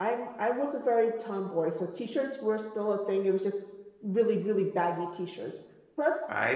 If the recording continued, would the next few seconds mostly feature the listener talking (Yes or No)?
No